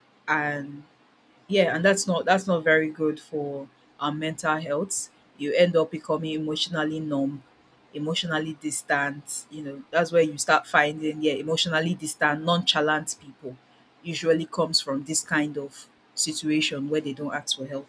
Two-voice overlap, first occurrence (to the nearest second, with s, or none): none